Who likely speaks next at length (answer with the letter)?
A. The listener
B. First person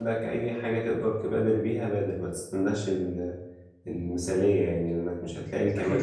A